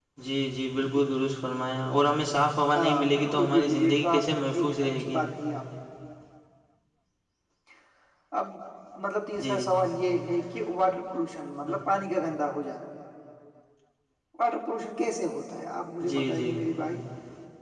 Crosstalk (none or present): present